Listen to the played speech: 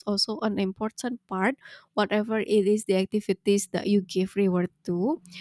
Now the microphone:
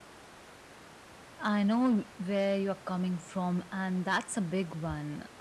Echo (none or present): none